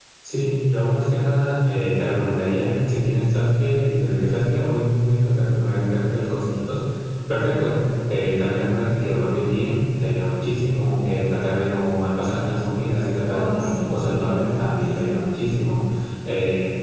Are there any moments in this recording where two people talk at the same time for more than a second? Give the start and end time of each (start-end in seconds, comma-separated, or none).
13.3-15.3